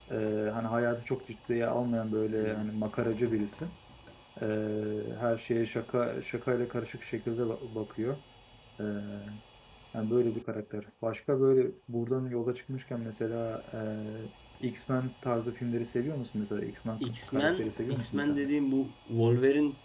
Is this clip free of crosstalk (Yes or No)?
No